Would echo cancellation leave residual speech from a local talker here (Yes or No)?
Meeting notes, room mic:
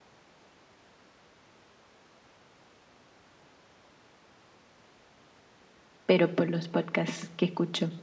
Yes